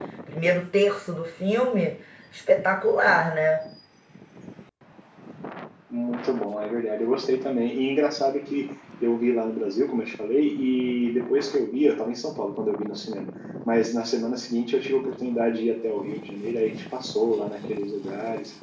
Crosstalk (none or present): none